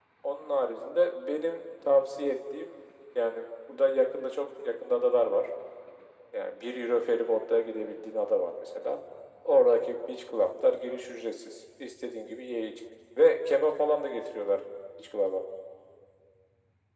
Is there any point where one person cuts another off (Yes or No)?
No